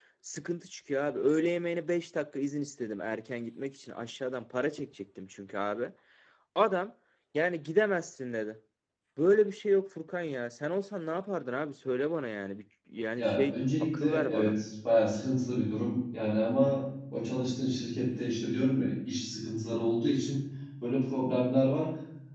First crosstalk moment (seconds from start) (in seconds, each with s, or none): 13.2 s